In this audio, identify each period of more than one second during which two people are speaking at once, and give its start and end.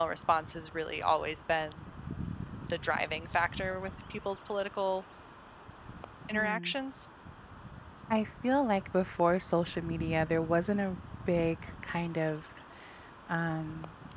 none

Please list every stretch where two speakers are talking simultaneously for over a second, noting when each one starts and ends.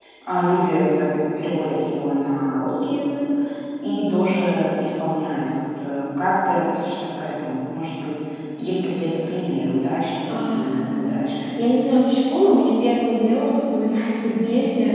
none

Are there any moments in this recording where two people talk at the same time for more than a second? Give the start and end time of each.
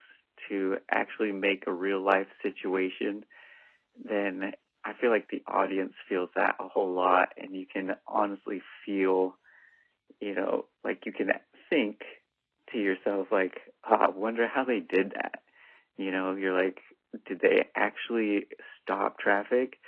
none

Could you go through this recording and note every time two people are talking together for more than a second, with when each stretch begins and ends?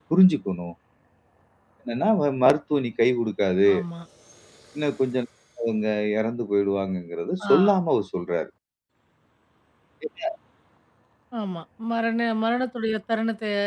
none

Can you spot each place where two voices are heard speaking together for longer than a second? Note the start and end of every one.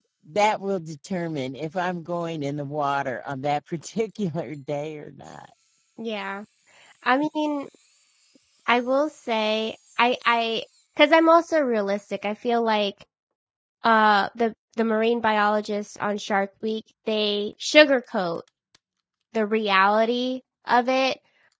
none

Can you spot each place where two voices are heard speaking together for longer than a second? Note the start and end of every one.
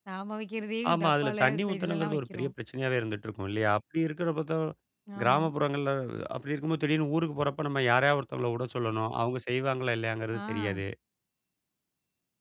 0.9-2.5

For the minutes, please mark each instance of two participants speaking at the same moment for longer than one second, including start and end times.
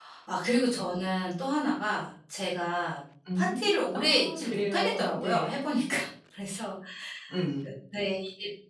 3.4-5.5

